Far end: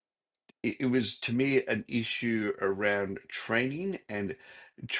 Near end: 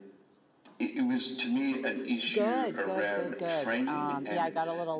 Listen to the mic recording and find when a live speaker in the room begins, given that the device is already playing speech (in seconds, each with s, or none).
2.3 s